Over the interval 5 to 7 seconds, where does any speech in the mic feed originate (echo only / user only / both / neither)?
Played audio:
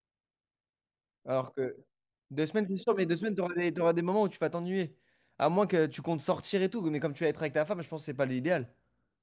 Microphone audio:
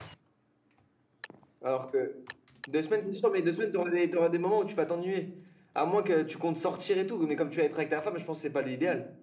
echo only